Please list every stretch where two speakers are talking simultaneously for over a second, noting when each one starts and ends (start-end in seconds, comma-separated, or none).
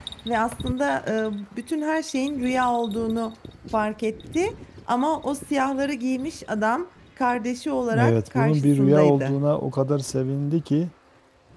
8.0-9.3